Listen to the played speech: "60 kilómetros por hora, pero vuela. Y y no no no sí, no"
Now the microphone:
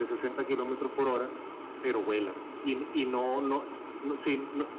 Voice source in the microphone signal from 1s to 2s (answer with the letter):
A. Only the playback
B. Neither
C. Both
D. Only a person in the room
A